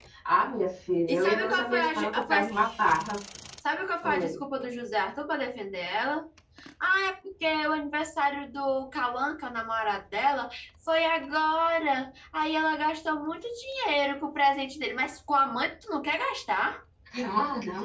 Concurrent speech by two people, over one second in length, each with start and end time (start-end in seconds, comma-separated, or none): 1.1-2.5